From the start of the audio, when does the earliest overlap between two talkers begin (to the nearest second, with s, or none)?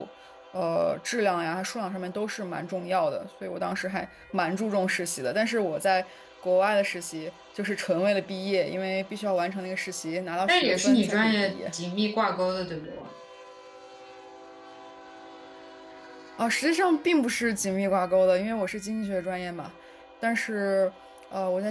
10 s